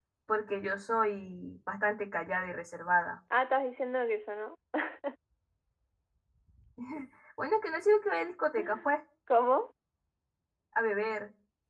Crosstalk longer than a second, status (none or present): none